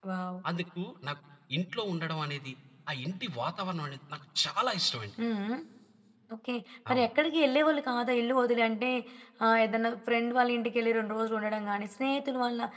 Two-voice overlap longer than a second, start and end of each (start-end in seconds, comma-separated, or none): none